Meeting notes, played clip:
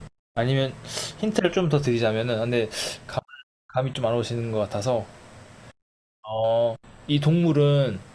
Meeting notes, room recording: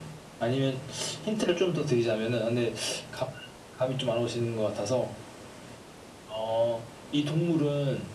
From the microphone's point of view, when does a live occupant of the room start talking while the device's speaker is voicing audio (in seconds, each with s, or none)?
none